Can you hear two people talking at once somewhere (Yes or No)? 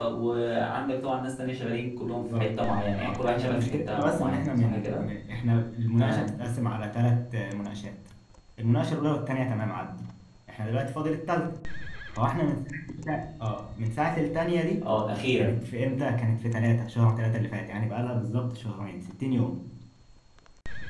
Yes